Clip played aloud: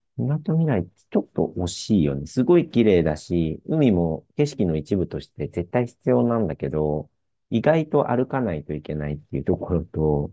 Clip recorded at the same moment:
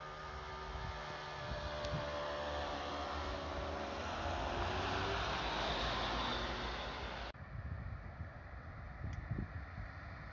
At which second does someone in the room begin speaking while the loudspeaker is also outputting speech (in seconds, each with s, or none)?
none